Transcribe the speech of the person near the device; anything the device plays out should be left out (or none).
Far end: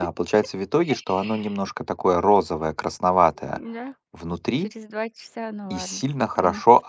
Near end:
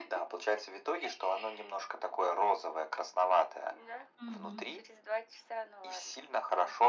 Мгм.